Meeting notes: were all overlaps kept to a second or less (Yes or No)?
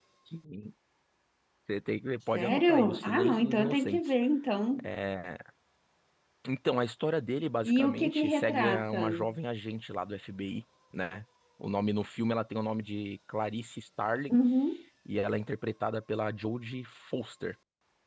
No